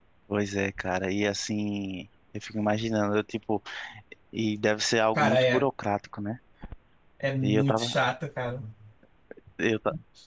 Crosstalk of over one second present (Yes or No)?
No